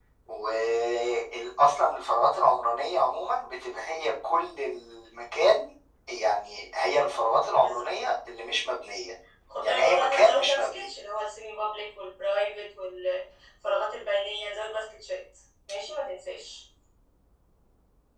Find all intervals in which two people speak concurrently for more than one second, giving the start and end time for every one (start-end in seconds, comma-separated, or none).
9.6-10.9